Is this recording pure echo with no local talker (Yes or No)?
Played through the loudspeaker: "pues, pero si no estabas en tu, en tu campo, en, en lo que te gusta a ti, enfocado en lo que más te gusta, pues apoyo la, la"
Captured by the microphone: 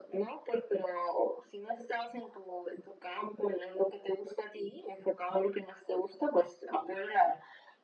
Yes